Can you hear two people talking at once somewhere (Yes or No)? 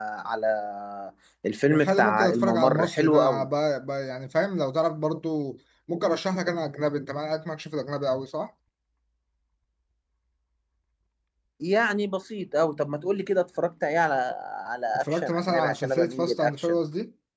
Yes